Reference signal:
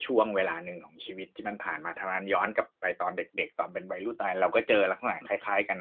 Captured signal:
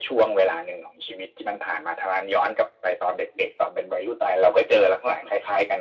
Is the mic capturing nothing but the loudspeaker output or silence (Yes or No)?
Yes